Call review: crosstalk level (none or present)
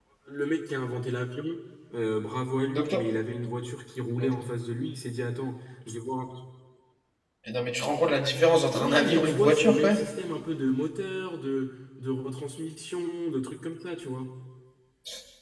present